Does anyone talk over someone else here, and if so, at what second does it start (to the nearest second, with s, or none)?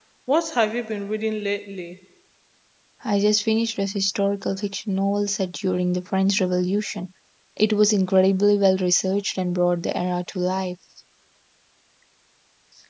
none